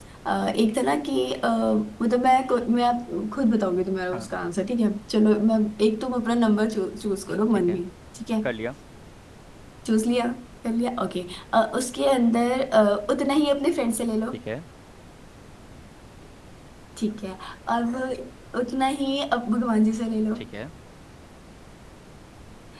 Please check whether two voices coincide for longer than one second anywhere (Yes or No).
No